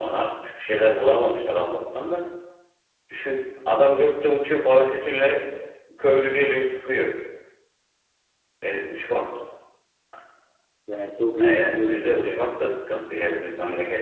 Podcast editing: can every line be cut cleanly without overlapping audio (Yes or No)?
No